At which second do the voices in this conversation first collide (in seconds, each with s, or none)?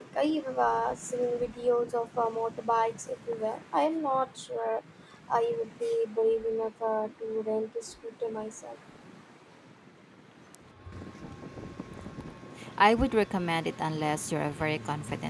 none